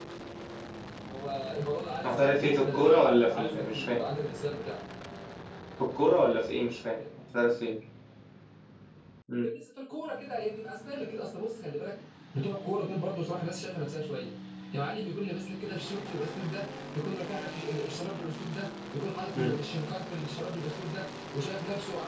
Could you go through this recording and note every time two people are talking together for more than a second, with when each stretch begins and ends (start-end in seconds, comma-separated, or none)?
2.0-4.0